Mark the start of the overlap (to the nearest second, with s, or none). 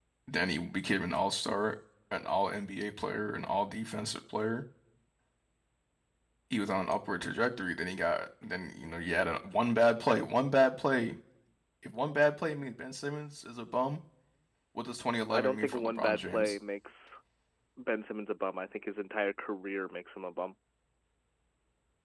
15 s